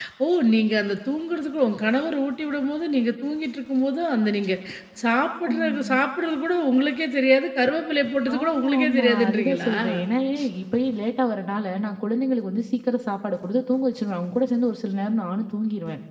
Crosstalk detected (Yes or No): Yes